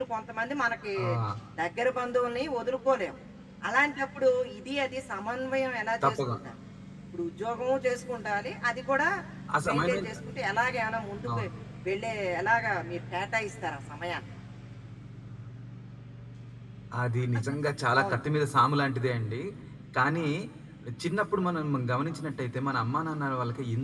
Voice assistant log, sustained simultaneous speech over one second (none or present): none